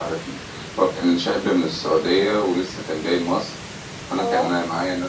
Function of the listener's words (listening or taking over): listening